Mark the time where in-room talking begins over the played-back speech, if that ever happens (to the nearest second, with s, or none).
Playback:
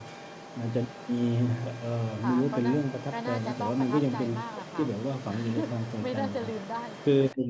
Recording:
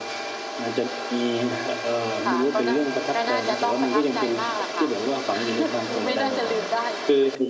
6 s